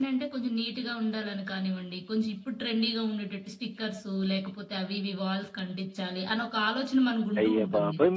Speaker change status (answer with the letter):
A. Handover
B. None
A